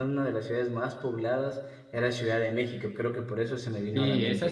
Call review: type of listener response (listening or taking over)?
taking over